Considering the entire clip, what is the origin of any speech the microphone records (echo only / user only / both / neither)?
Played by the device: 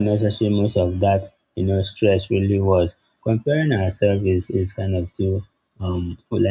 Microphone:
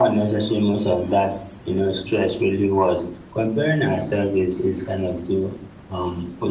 echo only